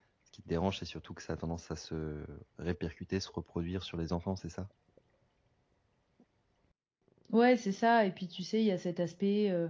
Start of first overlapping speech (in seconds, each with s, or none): none